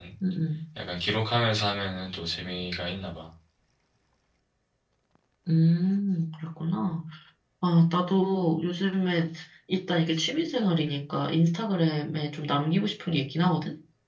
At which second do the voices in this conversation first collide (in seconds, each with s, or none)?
none